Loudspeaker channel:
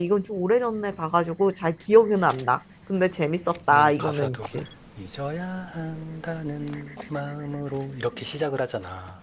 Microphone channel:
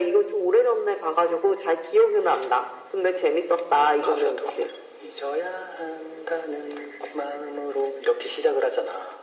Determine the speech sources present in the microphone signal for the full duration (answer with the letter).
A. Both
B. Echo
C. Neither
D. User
B